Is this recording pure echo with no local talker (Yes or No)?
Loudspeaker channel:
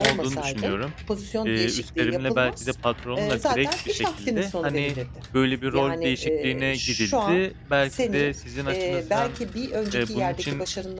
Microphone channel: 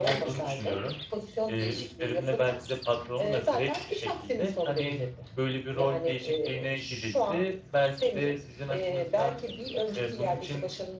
Yes